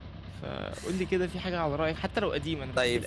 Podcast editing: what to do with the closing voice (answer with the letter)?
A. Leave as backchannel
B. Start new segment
B